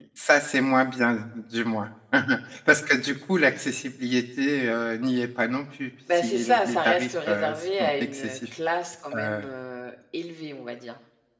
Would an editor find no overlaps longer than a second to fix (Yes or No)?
No